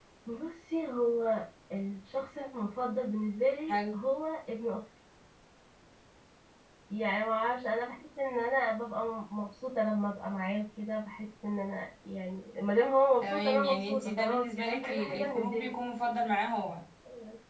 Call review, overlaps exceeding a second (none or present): present